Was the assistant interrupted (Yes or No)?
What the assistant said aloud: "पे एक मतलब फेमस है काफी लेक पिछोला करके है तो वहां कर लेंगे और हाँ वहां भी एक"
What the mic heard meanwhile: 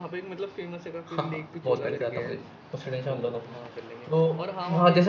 Yes